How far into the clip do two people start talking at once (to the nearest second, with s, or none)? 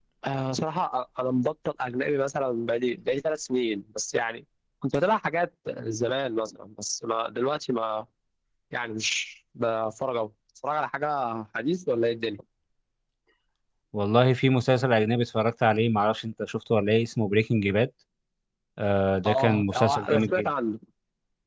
19 s